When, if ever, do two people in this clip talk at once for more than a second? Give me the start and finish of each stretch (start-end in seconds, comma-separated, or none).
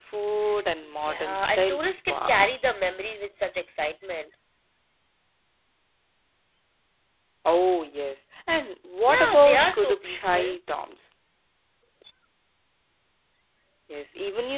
0.8-2.5, 9.1-10.6